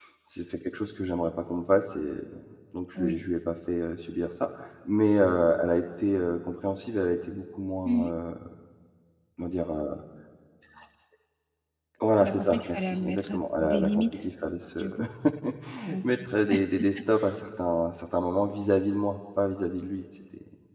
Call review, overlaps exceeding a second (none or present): present